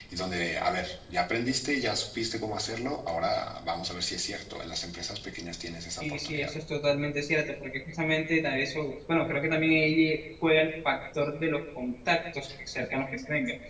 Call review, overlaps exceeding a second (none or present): none